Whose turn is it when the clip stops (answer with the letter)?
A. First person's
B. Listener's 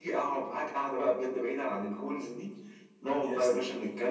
A